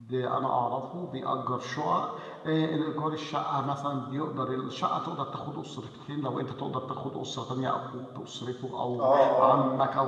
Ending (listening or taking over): taking over